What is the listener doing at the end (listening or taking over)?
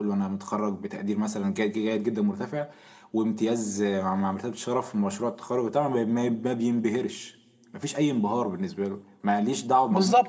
taking over